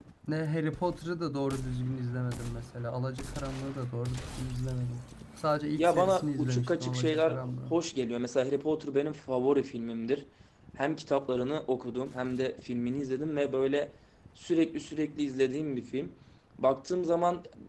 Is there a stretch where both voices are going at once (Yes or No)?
Yes